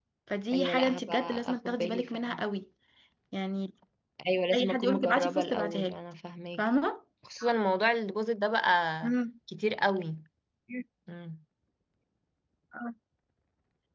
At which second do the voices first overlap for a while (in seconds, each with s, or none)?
0.5 s